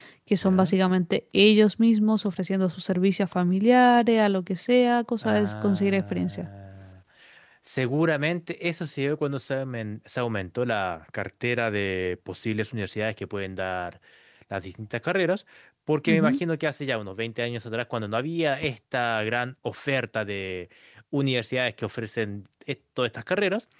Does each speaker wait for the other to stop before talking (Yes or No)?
No